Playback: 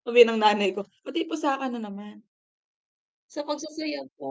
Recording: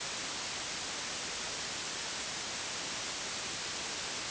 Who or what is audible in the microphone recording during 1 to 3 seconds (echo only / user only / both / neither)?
neither